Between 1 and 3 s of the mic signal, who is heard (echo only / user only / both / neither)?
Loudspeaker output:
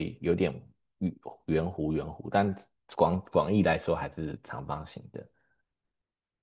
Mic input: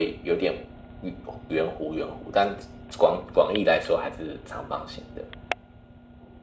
echo only